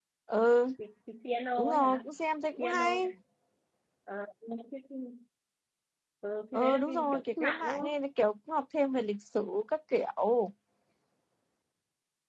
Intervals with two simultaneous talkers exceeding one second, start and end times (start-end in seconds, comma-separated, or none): 6.5-7.9